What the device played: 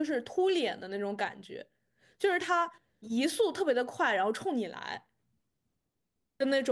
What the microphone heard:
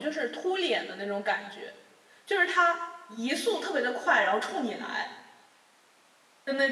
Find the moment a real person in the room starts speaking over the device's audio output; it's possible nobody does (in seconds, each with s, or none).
none